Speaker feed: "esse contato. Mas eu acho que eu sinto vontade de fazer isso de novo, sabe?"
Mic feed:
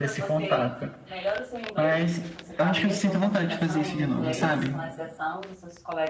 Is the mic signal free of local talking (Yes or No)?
No